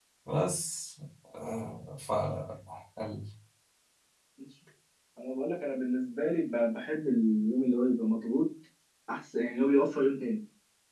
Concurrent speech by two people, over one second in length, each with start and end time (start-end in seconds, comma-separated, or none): none